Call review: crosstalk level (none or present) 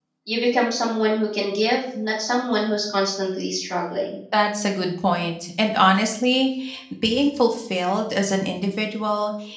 none